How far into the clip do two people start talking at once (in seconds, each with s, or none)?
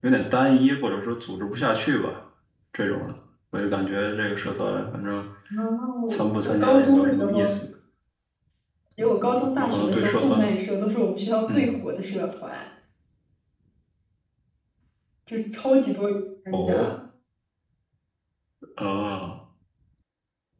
6.1 s